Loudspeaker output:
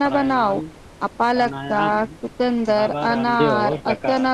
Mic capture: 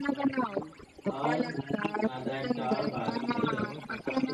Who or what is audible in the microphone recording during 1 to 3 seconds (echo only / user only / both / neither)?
both